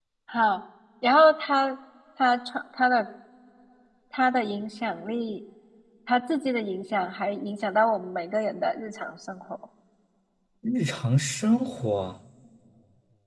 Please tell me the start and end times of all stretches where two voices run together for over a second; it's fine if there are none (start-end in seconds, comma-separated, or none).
none